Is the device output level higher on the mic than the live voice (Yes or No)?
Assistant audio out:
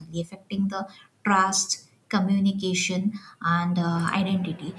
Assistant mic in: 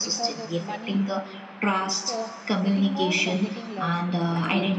Yes